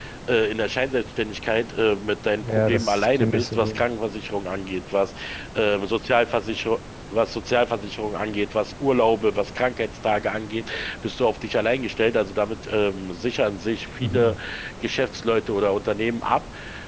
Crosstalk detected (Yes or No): Yes